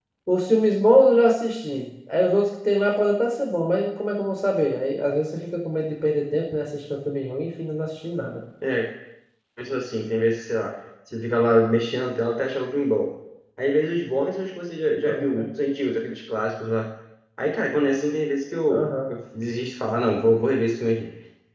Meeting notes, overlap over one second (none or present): none